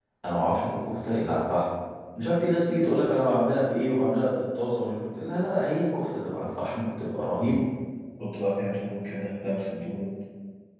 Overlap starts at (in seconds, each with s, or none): none